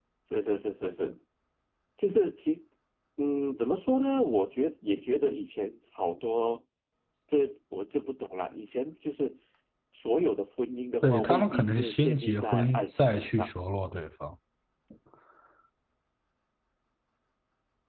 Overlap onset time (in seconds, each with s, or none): 11.0 s